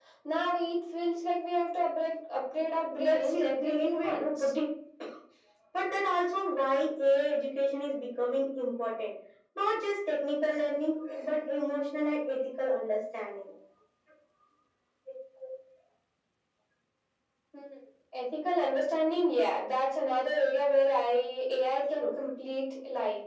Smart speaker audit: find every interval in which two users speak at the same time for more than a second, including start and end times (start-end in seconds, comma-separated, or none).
2.9-4.5